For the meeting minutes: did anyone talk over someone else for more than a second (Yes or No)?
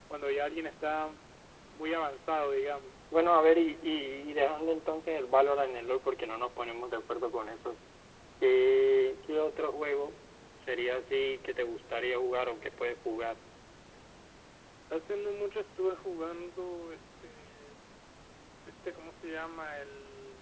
No